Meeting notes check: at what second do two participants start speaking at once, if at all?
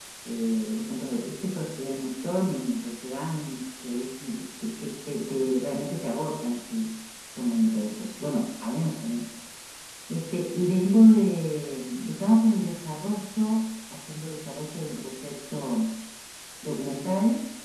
none

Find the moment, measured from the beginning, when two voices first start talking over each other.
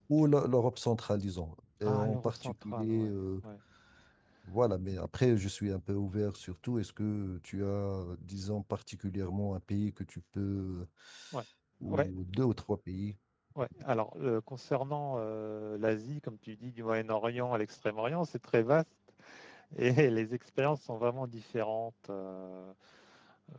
2 s

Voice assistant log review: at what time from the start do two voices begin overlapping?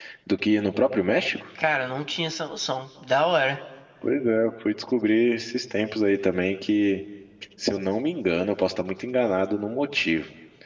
none

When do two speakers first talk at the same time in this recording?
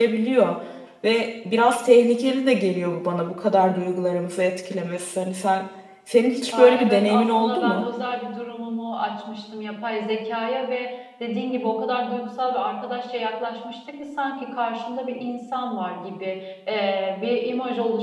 7 s

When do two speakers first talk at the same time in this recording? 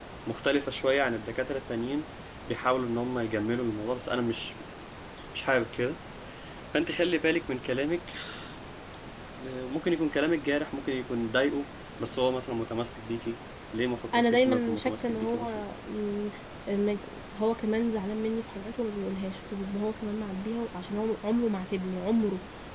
14 s

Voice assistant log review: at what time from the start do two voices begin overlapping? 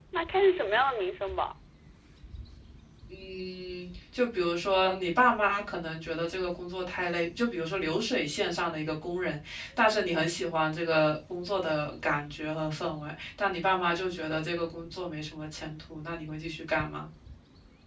none

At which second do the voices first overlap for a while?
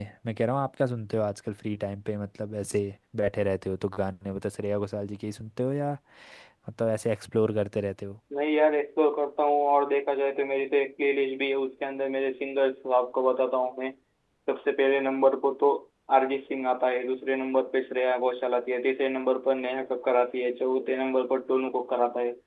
none

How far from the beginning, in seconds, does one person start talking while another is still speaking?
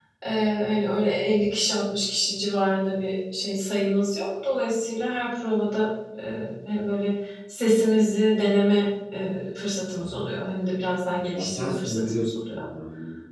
11 s

